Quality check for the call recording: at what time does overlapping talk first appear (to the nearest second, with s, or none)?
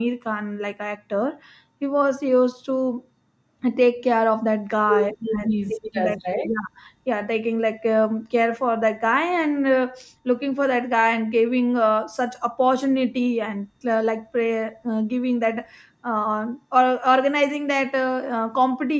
5 s